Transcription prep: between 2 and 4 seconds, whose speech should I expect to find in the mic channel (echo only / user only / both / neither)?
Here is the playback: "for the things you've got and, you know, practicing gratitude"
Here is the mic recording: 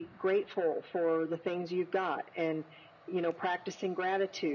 echo only